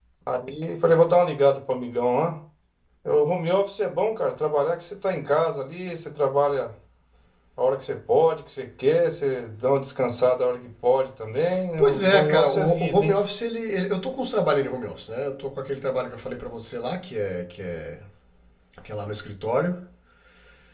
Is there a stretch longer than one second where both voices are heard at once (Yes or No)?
Yes